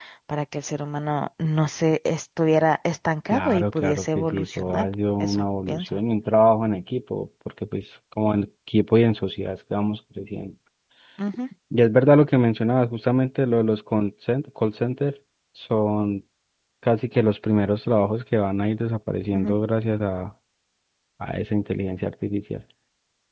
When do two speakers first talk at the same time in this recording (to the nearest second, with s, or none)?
3 s